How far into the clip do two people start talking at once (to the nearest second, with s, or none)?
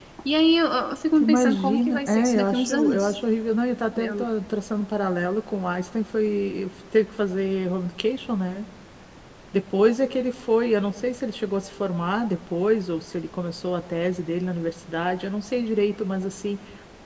1 s